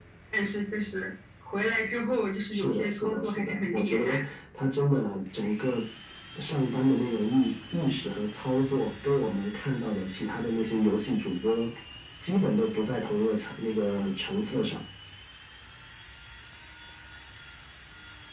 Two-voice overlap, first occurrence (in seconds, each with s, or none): 2.5 s